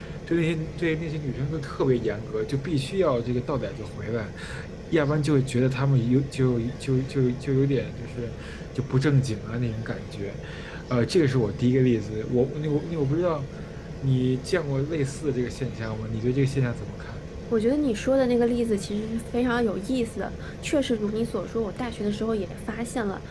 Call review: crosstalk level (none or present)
none